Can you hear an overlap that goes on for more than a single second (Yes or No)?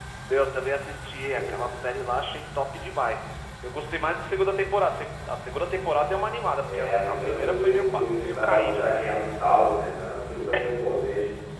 Yes